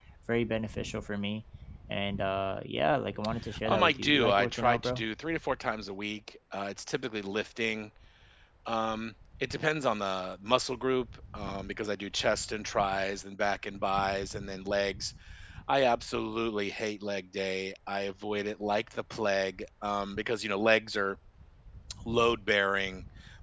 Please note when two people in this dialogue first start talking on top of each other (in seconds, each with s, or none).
3.5 s